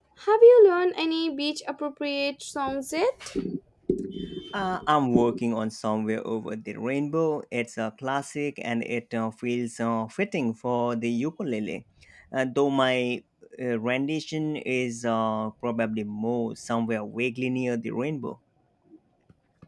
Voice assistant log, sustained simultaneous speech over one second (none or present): none